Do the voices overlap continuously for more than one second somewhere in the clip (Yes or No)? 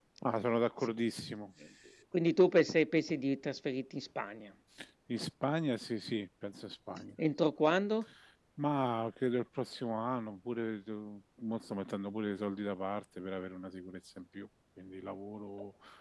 No